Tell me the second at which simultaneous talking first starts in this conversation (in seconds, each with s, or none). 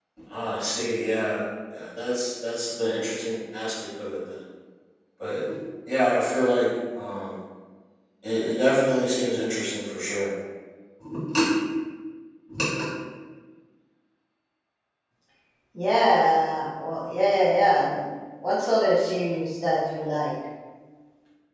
none